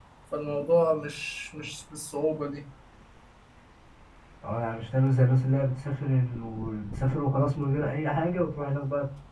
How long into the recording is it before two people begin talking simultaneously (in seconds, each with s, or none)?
none